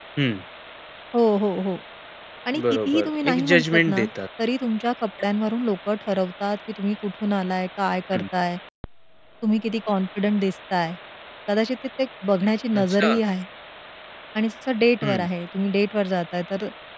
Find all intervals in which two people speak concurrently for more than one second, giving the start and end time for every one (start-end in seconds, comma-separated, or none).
2.7-4.0